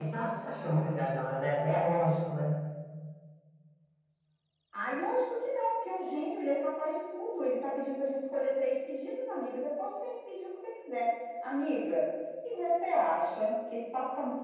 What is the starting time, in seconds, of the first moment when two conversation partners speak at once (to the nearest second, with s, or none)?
none